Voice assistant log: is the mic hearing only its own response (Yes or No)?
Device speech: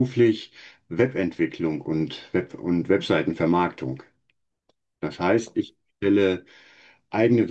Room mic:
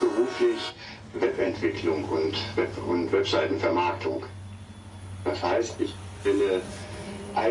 Yes